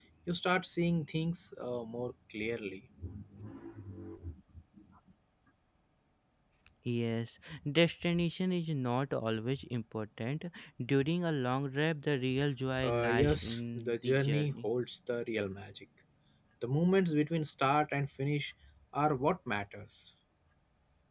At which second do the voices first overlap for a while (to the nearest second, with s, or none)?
13 s